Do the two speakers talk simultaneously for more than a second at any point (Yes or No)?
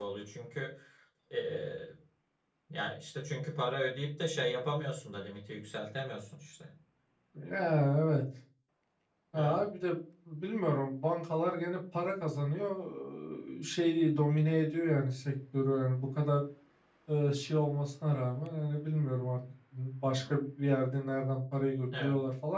No